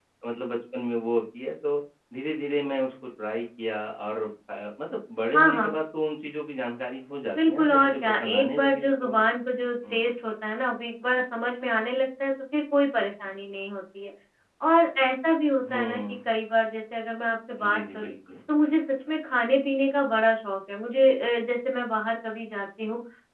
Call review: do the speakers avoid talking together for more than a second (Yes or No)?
No